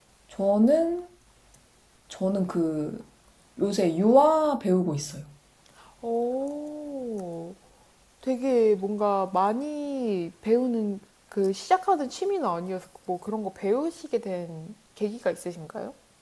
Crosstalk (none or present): none